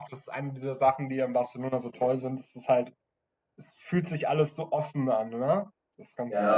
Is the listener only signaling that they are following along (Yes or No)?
No